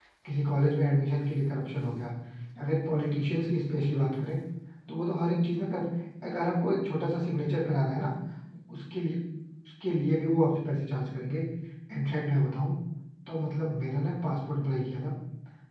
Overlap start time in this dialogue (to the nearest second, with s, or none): none